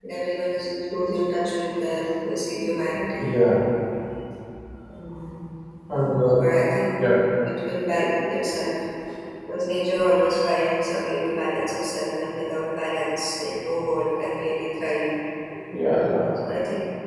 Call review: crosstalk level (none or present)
none